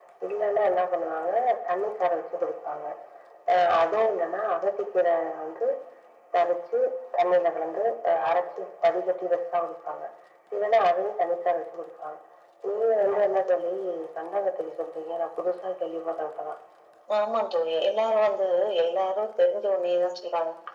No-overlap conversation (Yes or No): Yes